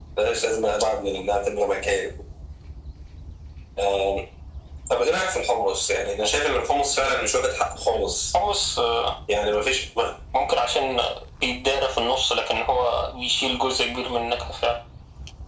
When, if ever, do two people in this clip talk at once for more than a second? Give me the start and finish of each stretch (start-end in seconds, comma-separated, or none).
none